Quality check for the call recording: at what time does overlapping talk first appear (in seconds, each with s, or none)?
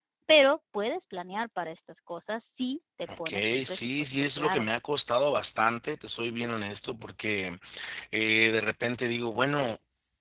3.1 s